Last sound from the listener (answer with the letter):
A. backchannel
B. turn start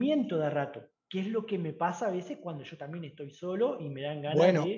B